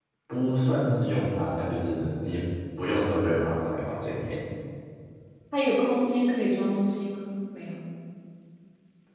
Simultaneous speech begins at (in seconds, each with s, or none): none